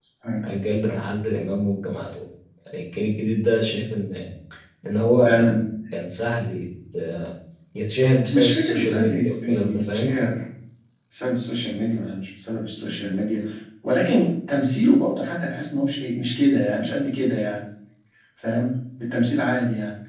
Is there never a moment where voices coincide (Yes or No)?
No